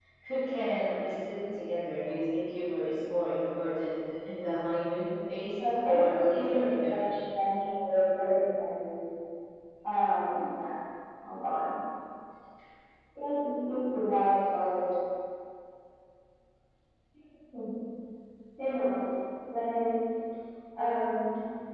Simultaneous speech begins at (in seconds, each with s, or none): 5.8 s